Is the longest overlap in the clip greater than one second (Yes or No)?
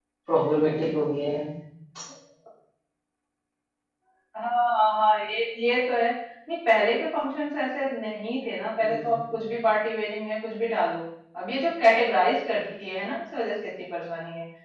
No